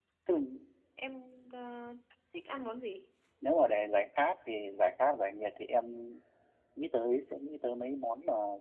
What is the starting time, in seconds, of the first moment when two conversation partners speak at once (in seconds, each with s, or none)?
none